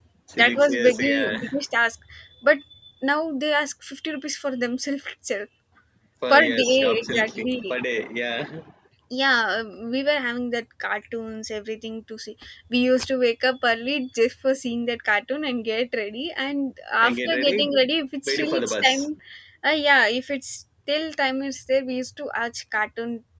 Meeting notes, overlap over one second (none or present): present